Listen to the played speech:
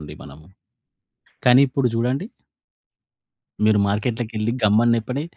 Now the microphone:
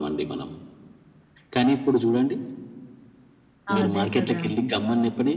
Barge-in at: 3.8 s

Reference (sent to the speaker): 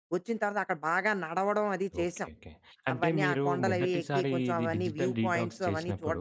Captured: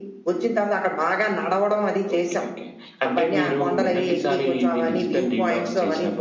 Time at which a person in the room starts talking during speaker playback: none

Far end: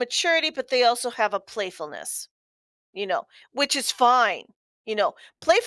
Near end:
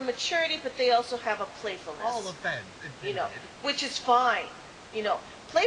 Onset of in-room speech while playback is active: 2.0 s

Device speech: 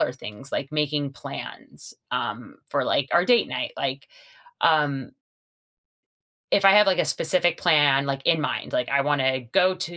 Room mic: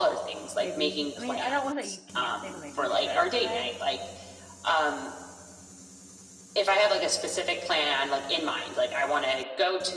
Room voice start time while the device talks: 0.6 s

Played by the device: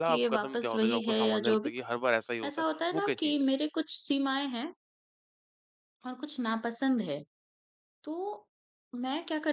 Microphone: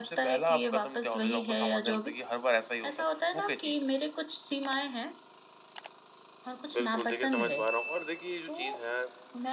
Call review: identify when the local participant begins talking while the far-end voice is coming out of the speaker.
6.7 s

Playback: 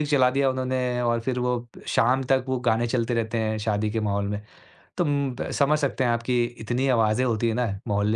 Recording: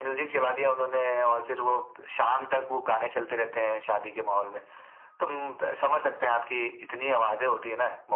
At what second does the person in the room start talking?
6.0 s

